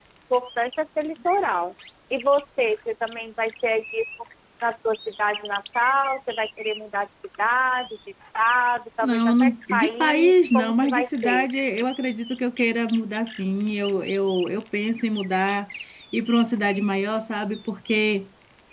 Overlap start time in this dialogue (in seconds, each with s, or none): 9.0 s